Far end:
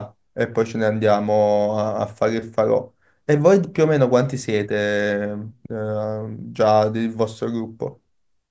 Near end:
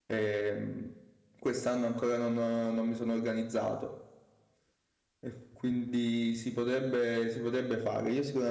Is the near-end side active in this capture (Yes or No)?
Yes